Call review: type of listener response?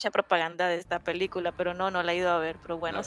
taking over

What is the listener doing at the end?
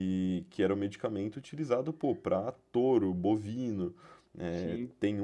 listening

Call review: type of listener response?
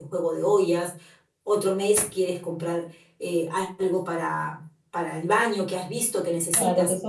taking over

